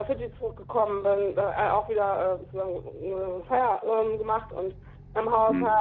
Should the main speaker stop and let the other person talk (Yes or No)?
No